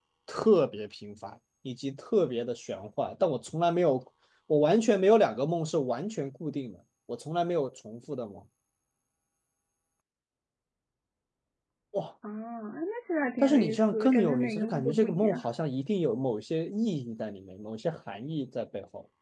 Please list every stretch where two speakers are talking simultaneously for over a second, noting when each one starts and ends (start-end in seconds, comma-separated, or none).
13.4-15.4